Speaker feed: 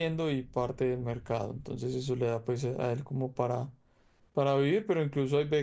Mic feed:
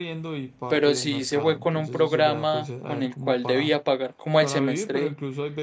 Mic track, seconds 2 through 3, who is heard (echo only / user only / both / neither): both